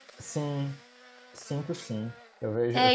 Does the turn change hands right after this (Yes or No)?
No